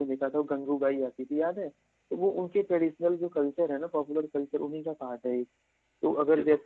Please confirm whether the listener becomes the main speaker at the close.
No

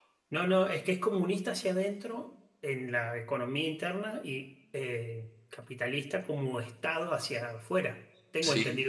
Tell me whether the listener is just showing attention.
No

